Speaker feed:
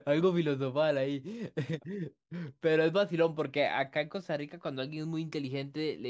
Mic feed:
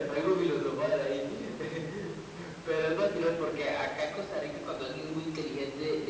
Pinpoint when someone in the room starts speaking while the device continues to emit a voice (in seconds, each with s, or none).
none